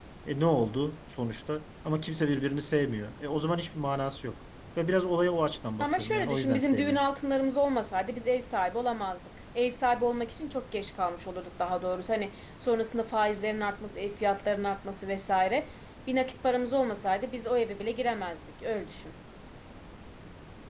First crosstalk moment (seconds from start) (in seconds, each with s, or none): 5.8 s